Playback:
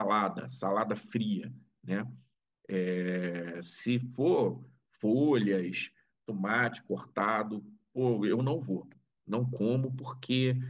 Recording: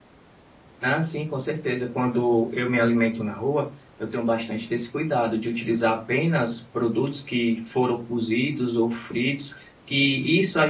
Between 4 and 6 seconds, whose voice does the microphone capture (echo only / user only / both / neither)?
user only